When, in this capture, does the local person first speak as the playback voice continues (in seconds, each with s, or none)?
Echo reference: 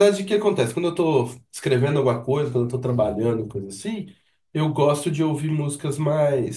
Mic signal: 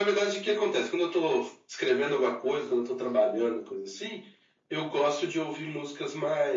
none